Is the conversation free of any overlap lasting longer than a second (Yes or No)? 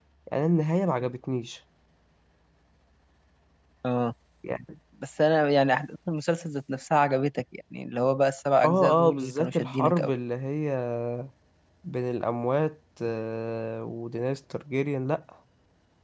No